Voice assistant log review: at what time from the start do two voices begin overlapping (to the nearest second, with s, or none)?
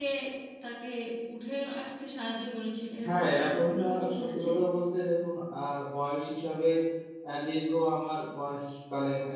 3 s